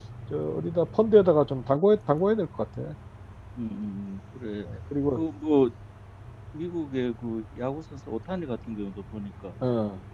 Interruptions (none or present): none